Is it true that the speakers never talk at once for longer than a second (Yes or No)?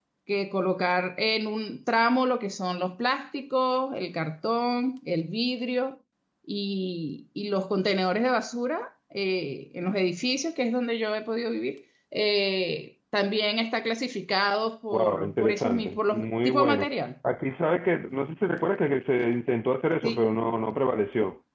No